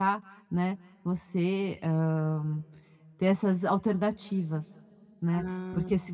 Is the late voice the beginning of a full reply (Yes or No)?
No